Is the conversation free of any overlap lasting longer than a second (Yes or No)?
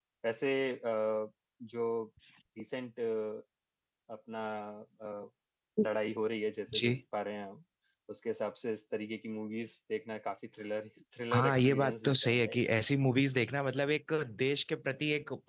No